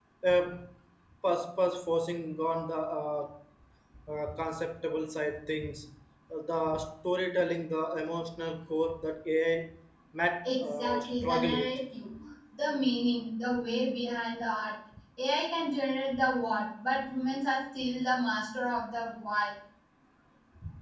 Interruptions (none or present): present